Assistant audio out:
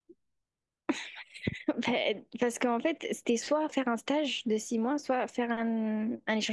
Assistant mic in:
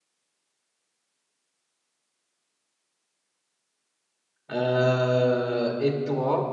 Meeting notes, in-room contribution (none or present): present